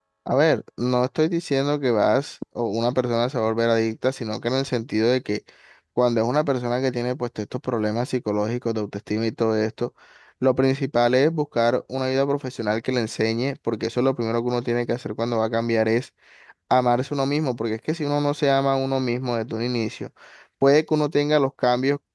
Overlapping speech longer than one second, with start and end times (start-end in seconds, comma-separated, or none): none